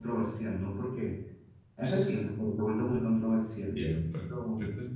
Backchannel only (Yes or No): No